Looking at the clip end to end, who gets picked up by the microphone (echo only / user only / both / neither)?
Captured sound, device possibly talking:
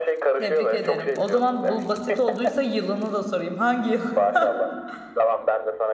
both